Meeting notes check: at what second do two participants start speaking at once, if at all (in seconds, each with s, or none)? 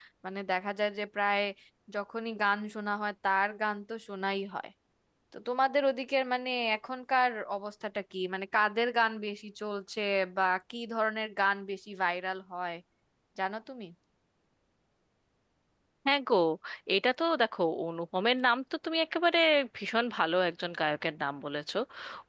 none